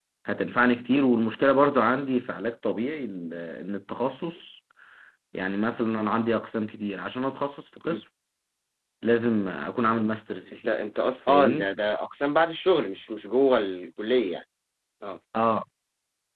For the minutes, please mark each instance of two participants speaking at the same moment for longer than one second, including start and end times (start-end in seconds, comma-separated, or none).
none